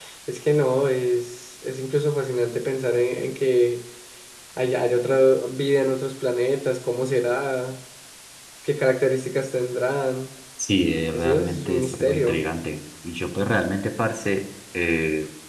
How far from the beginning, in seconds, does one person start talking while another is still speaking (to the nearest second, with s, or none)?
11 s